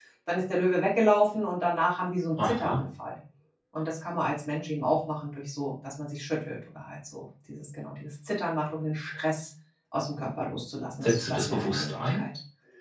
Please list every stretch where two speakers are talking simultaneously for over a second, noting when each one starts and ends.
11.0-12.2

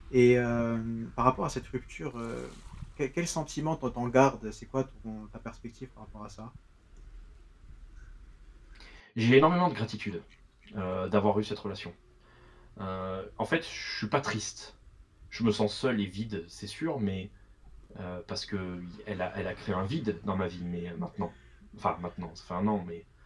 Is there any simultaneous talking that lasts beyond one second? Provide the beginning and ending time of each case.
none

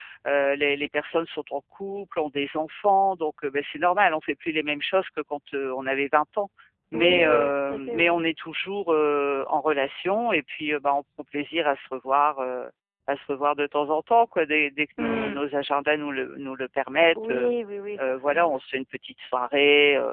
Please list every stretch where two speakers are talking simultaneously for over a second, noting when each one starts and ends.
6.9-8.2

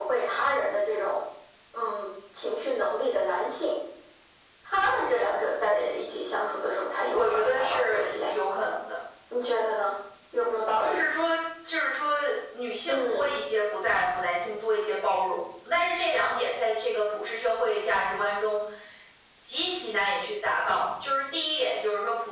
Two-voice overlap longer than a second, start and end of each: 7.1-8.3

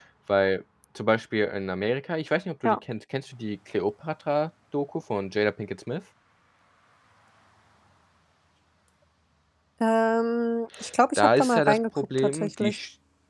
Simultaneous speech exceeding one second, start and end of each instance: 11.2-12.8

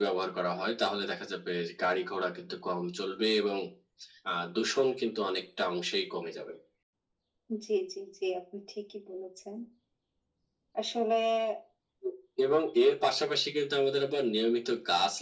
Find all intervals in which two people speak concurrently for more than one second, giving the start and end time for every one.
none

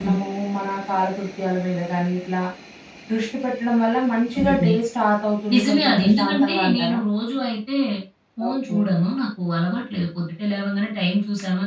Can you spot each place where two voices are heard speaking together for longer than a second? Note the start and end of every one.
5.5-7.0

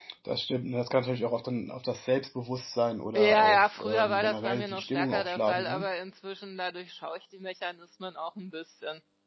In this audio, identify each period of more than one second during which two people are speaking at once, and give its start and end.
3.1-5.9

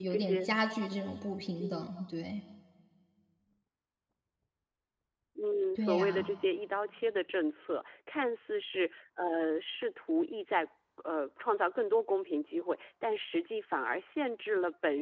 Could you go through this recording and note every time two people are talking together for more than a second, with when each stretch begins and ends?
none

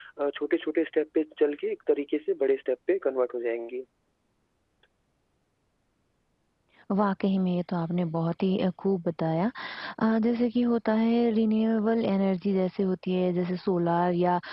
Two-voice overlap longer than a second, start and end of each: none

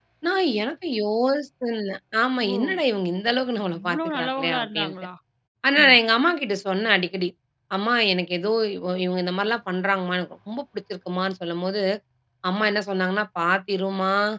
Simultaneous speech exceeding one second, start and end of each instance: 3.7-4.9

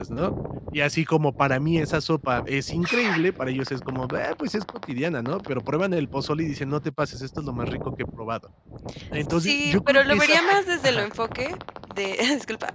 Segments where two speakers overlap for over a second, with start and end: 9.3-11.1

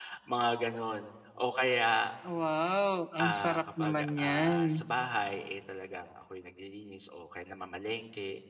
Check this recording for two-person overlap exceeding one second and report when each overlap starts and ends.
3.2-4.8

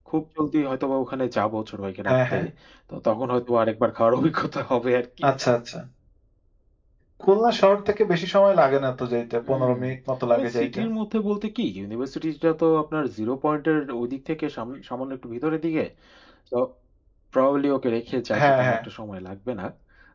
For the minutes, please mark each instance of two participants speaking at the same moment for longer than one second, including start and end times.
none

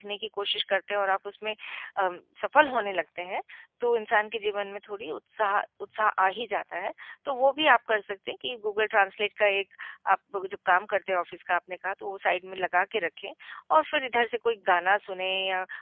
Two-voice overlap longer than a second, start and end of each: none

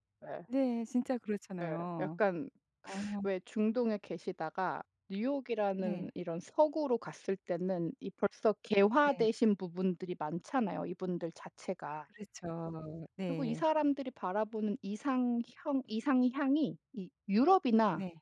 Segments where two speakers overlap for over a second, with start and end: none

